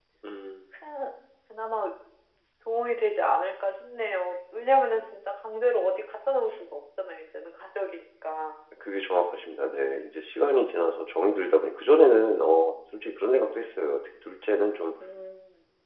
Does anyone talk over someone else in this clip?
No

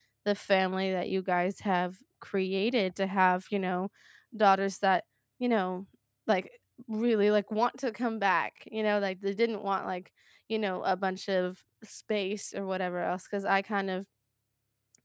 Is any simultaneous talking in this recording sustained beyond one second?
No

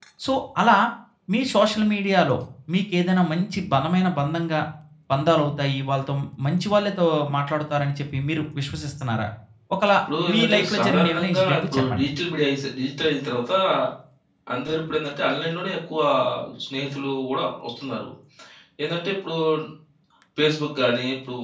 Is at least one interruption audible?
Yes, from 10.3 s

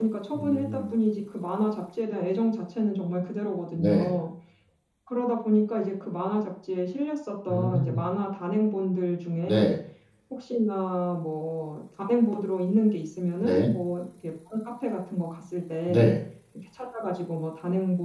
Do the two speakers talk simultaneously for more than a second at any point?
No

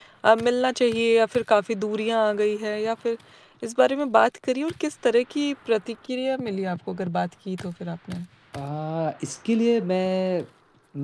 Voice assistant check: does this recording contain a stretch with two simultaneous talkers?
No

